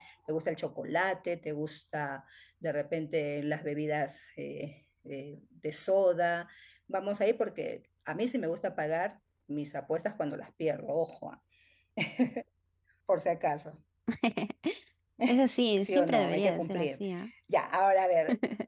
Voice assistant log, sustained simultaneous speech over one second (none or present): present